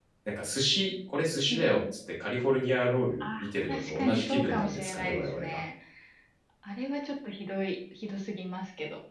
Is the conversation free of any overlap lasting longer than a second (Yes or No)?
No